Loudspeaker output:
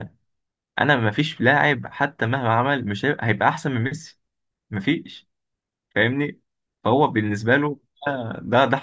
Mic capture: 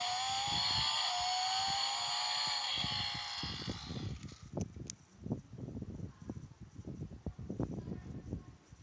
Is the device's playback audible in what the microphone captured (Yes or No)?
No